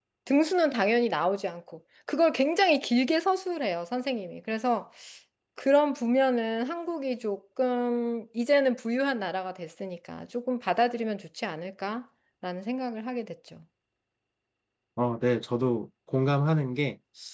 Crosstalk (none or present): none